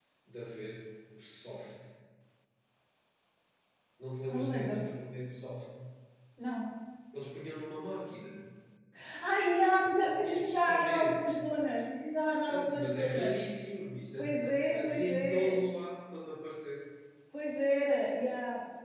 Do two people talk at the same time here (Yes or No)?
Yes